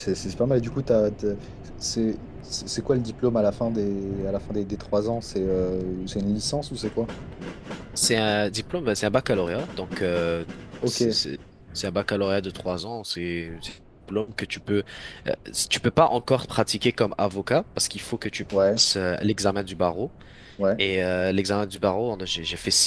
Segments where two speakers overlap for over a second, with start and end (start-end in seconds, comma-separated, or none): none